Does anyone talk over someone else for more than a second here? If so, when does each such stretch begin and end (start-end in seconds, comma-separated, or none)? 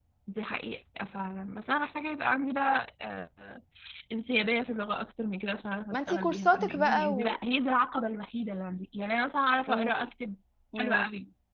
5.9-7.4